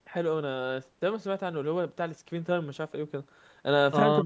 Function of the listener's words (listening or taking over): listening